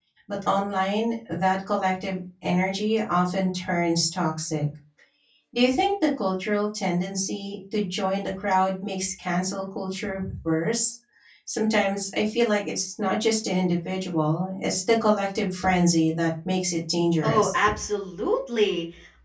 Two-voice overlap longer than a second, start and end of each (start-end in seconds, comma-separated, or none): none